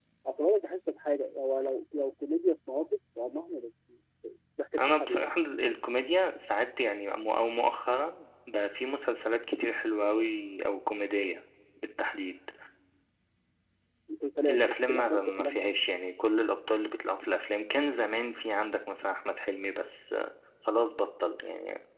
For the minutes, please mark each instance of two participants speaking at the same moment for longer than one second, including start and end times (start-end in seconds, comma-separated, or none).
14.5-15.7